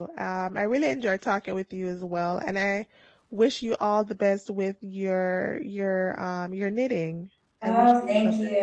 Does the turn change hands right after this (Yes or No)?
Yes